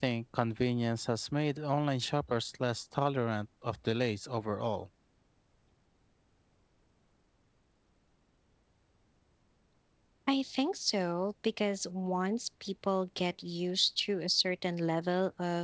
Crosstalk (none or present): none